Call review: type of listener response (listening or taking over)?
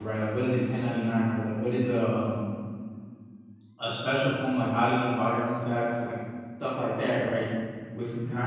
listening